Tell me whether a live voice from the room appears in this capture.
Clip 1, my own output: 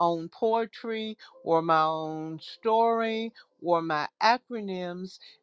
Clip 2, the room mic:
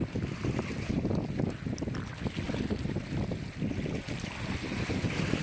No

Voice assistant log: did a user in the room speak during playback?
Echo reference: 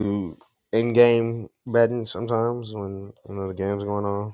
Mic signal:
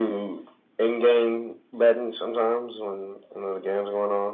No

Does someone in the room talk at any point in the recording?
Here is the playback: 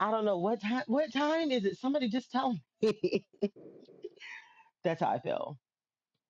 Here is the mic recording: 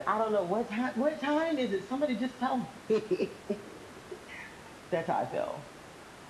No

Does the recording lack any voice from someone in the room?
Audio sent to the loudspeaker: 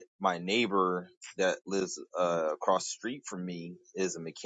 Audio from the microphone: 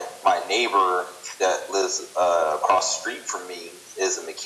Yes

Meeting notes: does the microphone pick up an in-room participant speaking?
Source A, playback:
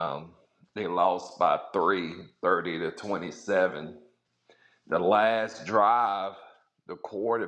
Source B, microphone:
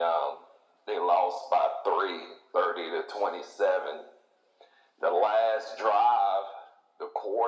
No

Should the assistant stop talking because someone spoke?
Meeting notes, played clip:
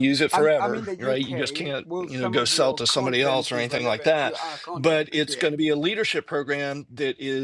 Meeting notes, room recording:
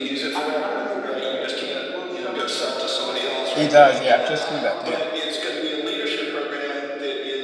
Yes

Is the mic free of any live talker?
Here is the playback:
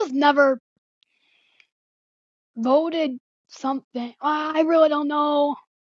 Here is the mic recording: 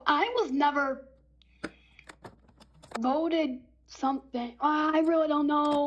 Yes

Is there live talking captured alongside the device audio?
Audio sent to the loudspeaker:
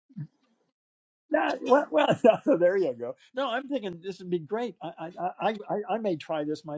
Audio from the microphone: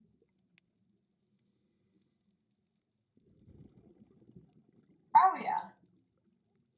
Yes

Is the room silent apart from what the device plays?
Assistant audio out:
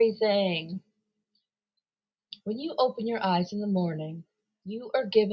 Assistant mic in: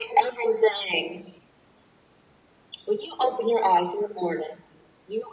Yes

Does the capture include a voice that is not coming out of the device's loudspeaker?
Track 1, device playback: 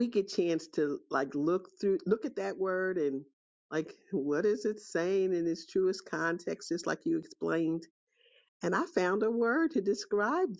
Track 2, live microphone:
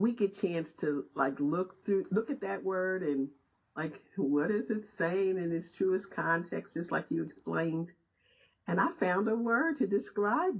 No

